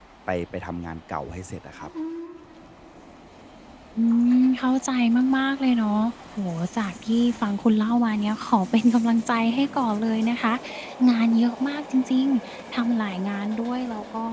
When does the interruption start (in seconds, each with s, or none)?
none